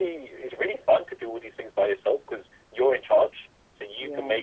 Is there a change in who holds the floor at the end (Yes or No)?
No